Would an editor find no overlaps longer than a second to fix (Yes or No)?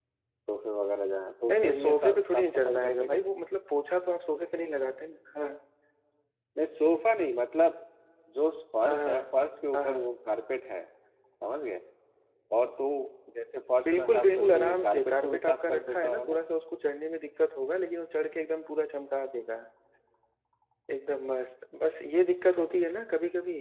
No